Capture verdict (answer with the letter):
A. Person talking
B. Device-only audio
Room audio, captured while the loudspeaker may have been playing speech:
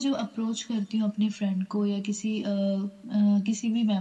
B